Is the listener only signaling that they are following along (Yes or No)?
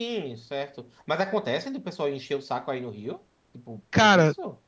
No